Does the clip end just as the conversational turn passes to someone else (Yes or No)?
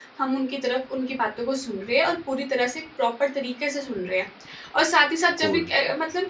No